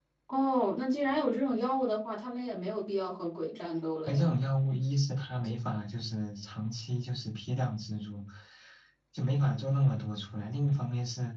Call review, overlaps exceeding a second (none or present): none